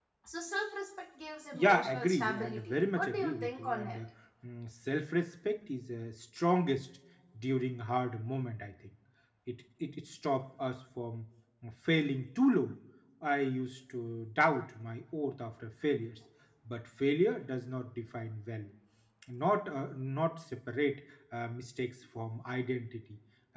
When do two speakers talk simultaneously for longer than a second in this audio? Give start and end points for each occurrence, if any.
1.5-4.0

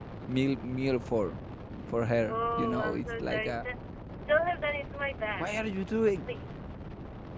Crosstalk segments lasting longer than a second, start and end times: 2.3-3.6

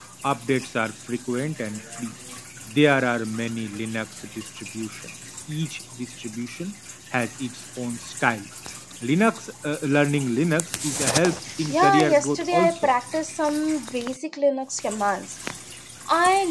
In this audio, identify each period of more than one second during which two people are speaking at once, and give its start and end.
11.7-12.9

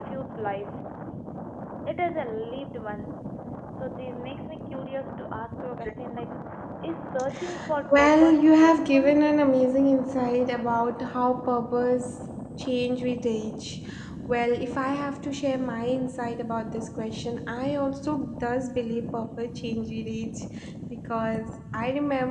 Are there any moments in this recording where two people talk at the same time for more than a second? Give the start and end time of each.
7.9-9.2

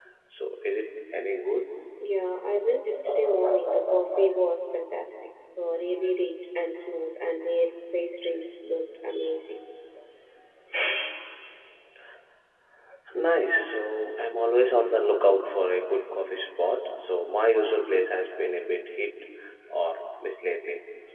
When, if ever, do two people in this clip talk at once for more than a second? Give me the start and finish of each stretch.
none

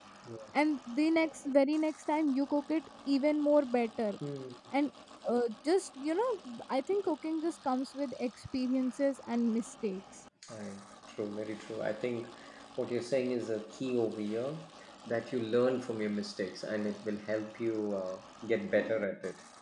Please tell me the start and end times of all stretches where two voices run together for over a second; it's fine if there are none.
none

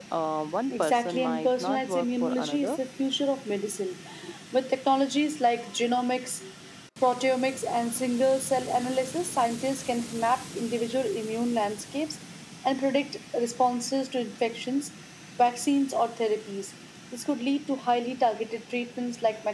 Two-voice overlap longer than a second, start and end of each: 0.7-2.8

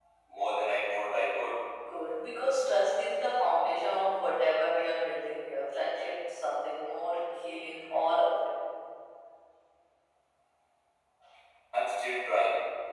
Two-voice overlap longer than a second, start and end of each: none

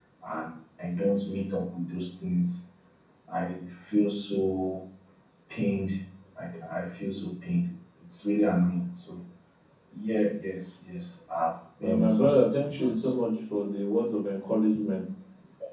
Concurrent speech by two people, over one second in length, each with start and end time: 11.8-13.2

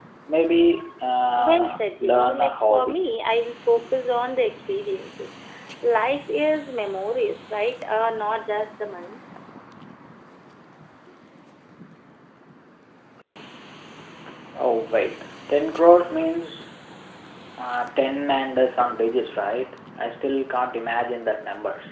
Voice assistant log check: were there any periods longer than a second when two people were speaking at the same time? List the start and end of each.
1.4-3.0

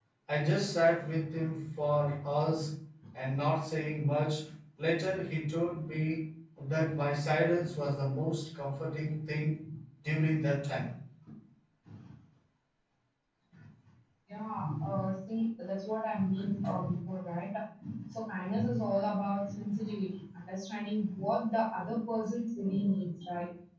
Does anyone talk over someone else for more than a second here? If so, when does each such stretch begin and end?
none

